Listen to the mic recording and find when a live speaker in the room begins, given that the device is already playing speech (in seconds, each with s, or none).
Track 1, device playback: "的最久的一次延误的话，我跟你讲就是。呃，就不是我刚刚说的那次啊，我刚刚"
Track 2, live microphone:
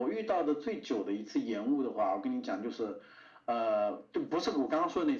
none